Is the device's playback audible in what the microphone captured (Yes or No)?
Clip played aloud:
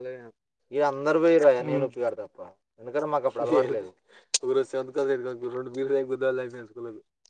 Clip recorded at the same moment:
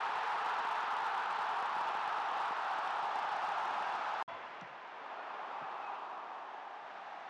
No